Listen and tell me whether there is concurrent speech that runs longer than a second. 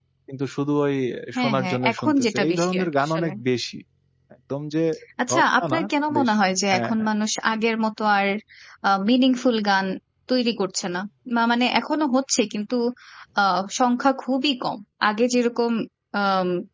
Yes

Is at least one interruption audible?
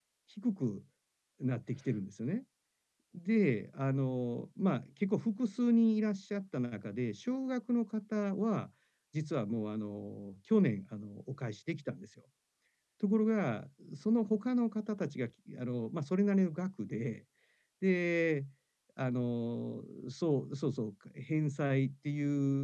No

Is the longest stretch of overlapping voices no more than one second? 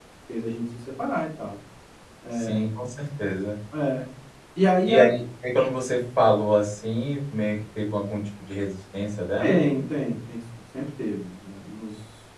Yes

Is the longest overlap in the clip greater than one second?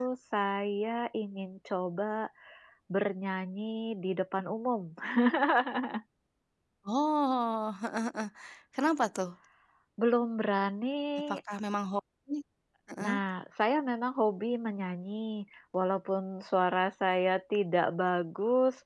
No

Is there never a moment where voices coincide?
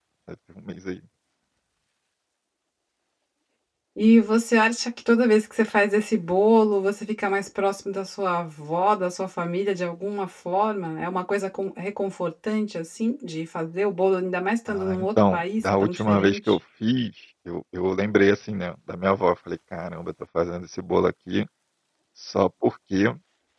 No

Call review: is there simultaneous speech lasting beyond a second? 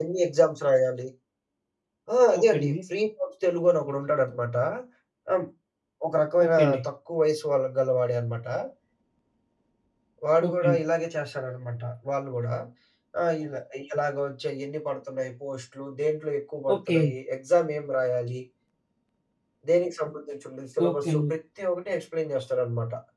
No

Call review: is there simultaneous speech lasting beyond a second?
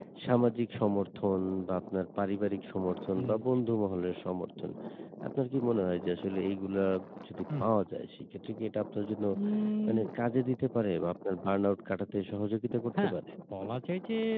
No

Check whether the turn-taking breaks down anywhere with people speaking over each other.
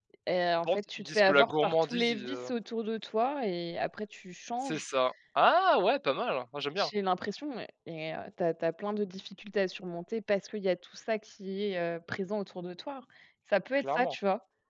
Yes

